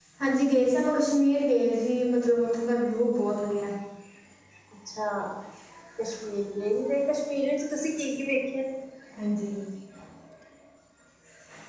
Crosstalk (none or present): none